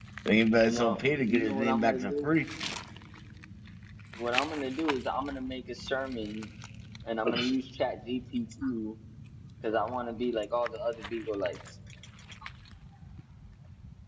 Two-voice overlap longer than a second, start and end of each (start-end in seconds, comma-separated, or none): 0.6-2.3